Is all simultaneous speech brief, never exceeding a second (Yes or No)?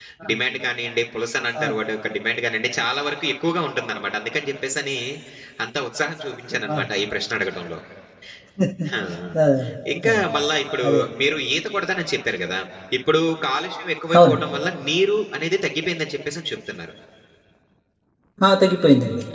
Yes